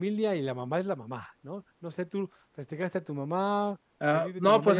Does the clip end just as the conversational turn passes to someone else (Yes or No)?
Yes